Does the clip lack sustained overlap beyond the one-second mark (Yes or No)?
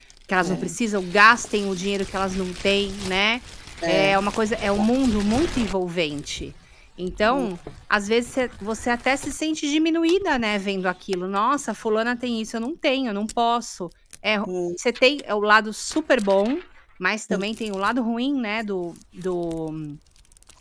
Yes